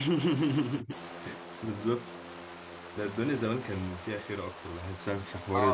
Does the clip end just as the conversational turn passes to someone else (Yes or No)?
Yes